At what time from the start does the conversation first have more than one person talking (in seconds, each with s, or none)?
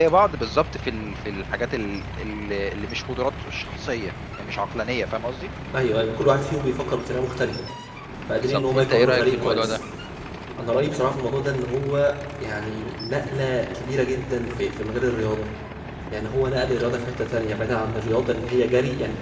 8.4 s